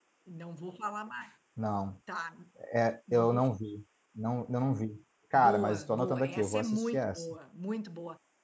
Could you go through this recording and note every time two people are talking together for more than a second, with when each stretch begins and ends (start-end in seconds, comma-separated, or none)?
5.3-7.2